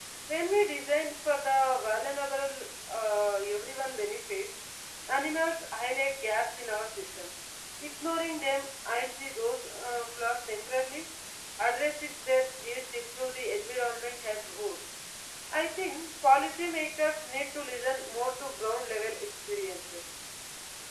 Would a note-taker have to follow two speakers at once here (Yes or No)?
No